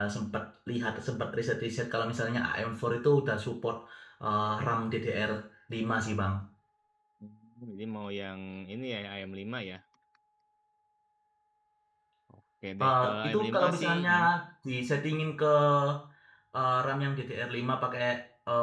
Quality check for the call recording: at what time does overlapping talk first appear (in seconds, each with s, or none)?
12.8 s